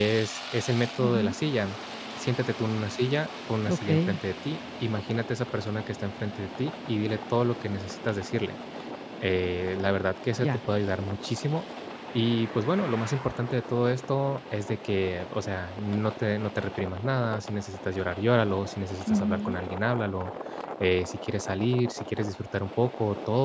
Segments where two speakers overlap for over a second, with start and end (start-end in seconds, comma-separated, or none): none